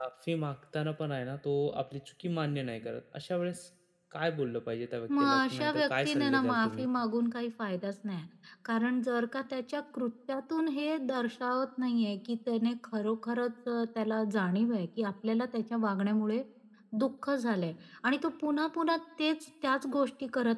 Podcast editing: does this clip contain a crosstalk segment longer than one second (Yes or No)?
Yes